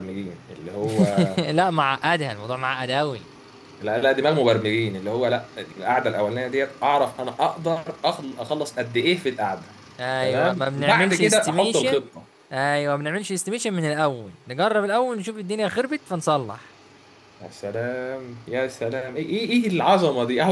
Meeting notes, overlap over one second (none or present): present